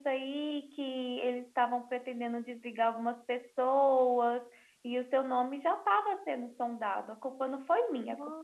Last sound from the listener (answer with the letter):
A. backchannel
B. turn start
B